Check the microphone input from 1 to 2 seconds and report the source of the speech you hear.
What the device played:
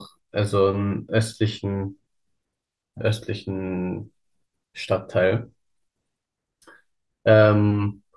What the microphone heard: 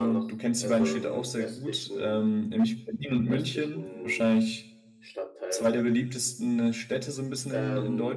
both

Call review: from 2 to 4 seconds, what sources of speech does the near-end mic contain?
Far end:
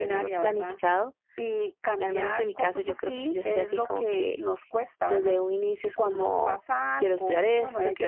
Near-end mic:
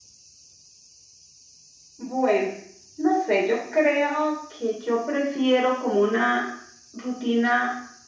user only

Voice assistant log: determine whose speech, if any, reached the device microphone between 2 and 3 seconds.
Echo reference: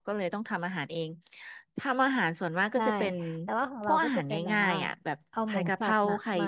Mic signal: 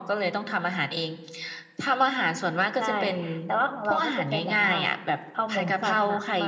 echo only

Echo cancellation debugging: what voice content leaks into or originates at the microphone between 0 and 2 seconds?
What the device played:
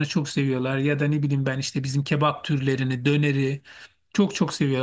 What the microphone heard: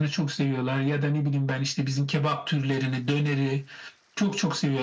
echo only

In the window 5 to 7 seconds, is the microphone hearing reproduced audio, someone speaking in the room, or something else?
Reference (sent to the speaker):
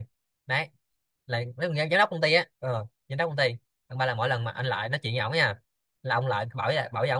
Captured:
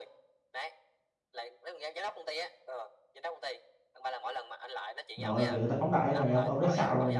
both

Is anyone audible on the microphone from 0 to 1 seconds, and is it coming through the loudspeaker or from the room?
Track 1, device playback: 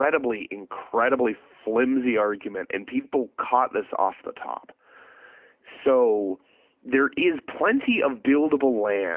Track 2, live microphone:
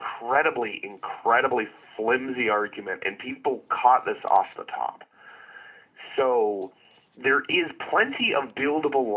echo only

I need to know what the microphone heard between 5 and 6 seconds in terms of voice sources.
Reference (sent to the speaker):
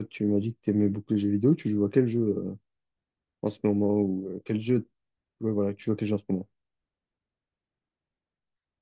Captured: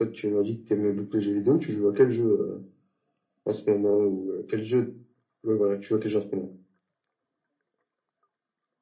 echo only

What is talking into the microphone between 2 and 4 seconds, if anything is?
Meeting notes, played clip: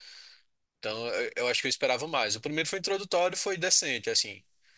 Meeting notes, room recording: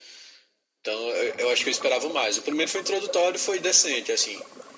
echo only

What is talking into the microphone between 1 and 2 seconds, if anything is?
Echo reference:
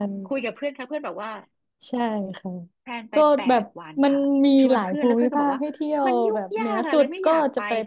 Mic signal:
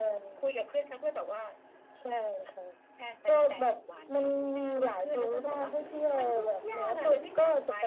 echo only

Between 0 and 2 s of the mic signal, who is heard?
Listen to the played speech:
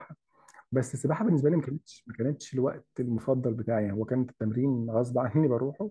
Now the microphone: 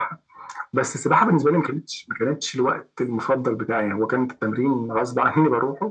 echo only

